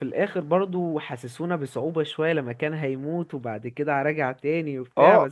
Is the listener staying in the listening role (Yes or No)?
No